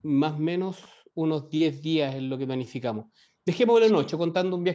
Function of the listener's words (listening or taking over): listening